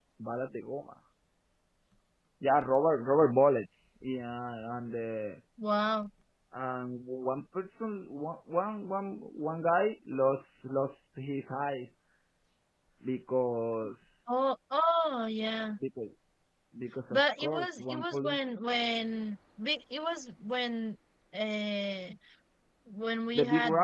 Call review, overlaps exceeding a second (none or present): present